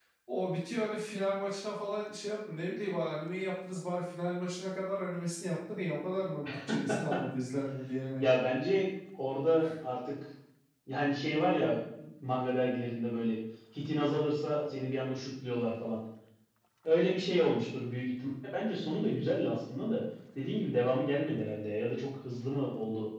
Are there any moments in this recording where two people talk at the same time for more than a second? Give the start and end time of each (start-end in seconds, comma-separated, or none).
none